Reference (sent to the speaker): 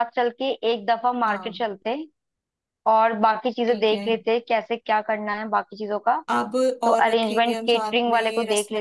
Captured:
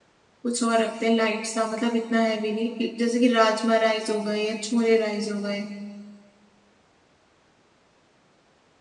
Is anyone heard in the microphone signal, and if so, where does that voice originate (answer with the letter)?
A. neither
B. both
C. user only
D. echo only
C